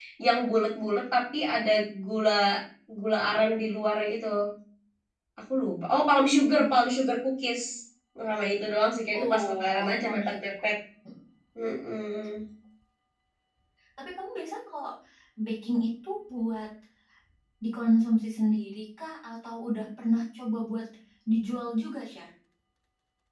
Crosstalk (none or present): present